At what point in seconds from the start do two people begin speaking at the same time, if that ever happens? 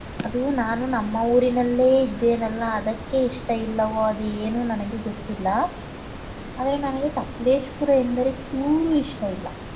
none

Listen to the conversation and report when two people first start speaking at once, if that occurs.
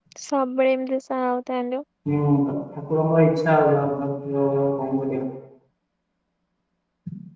none

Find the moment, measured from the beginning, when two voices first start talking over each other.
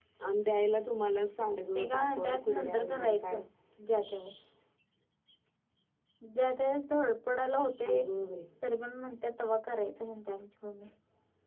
1.7 s

